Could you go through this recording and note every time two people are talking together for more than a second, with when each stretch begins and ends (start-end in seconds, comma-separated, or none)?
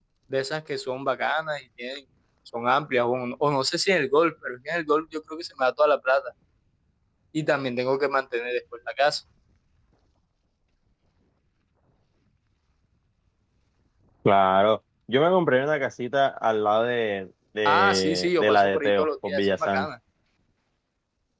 17.6-19.9